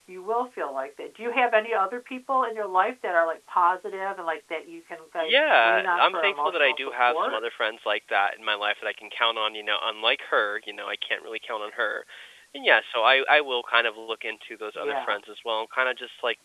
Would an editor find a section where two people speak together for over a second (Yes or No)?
Yes